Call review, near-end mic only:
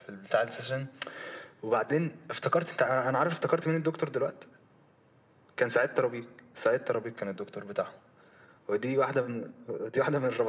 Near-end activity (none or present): none